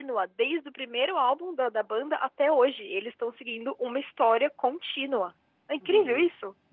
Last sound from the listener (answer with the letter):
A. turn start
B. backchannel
A